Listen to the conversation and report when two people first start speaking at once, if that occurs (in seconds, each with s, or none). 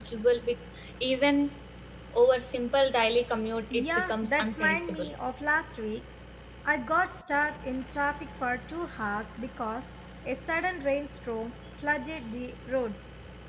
3.7 s